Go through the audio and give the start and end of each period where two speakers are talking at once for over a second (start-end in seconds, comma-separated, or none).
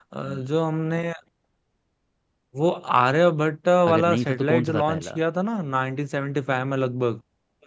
3.9-5.2